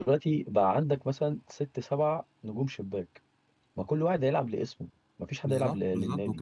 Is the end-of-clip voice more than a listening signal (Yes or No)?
Yes